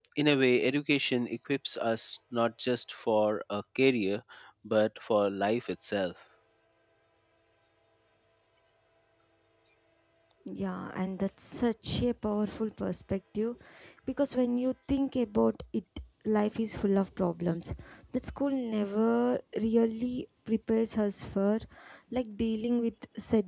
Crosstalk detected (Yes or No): No